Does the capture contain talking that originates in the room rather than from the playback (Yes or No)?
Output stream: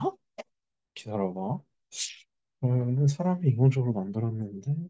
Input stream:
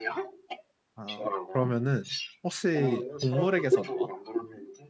Yes